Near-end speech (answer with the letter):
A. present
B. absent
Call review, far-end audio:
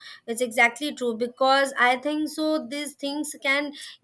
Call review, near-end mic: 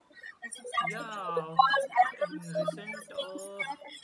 A